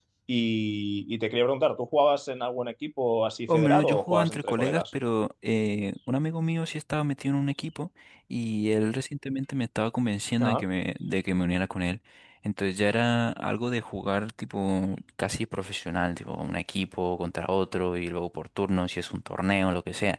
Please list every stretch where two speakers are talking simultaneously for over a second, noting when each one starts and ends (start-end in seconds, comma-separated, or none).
3.5-4.8